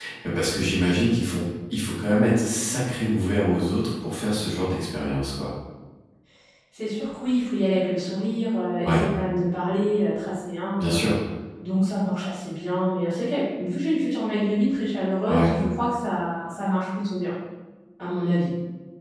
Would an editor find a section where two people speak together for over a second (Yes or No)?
No